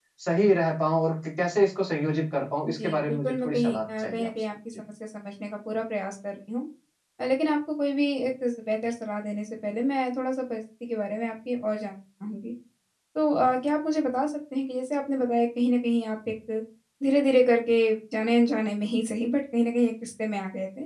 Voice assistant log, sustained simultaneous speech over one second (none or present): present